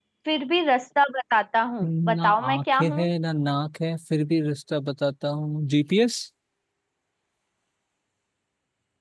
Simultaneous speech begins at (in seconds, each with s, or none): 1.8 s